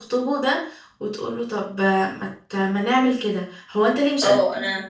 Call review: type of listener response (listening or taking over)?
taking over